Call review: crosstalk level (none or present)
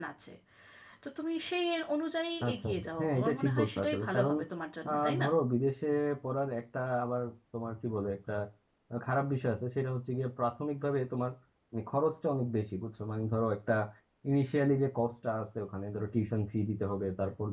present